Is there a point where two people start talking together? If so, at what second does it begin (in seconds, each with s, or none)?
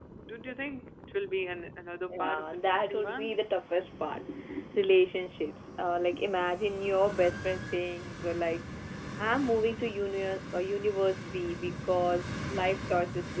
2.1 s